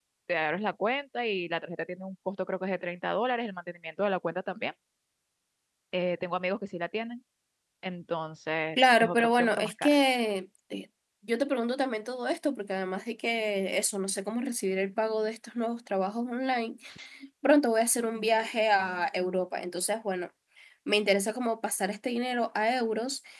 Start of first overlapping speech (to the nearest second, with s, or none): 9 s